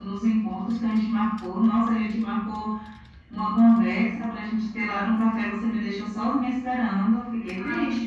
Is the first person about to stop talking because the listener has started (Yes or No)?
Yes